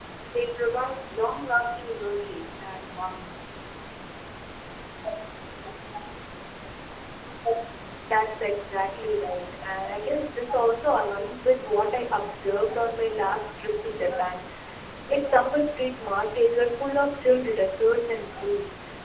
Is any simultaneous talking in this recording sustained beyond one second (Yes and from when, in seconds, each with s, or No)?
No